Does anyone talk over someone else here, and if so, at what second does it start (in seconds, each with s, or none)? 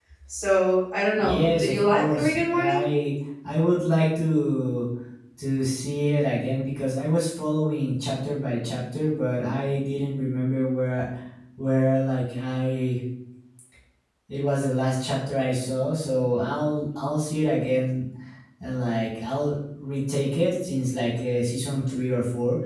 1.2 s